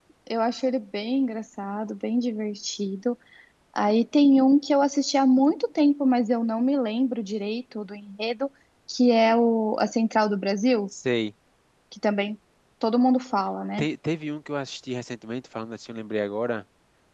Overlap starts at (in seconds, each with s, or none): none